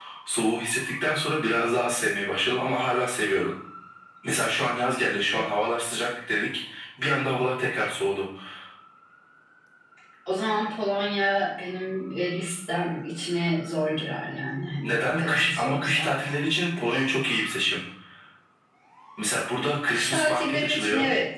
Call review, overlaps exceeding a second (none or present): present